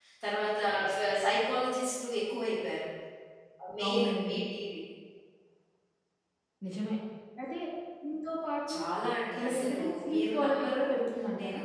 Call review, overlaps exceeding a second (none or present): present